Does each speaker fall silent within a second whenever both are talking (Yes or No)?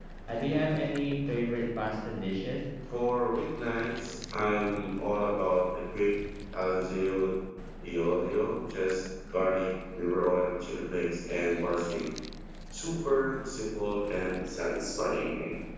Yes